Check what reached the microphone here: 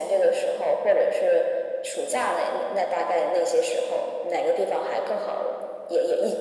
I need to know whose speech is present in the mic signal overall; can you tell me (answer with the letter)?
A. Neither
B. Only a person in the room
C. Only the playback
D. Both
C